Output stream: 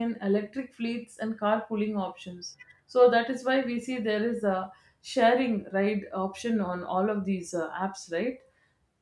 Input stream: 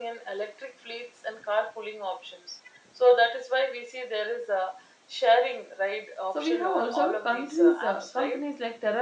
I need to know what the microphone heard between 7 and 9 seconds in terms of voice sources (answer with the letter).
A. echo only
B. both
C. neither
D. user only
B